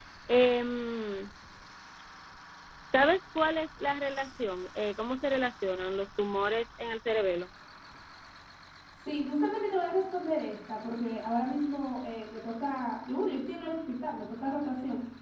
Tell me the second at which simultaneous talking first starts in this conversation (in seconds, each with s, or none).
none